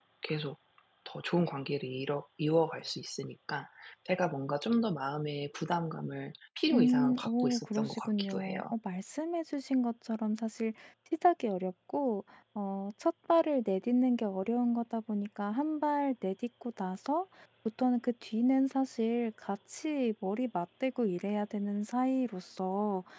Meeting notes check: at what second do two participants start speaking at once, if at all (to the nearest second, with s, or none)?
7 s